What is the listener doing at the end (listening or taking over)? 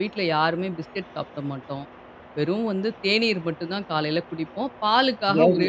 listening